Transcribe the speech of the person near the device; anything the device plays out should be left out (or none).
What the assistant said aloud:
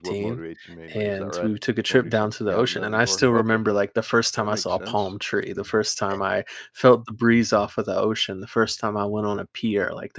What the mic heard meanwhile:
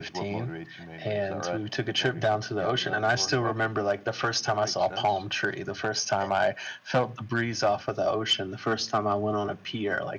none